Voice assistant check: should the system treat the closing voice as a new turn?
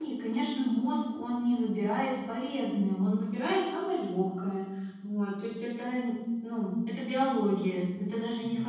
No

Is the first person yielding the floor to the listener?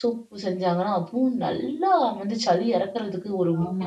Yes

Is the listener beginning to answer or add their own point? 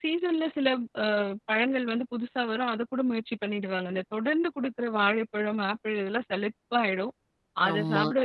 No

